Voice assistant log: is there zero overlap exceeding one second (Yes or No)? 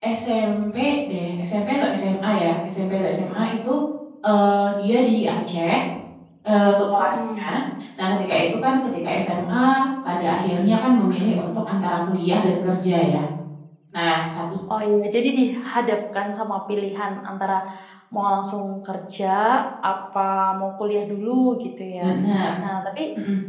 Yes